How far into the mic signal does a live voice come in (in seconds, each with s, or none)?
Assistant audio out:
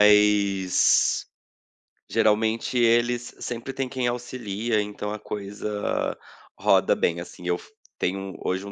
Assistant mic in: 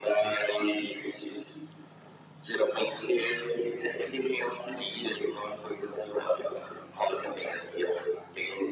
none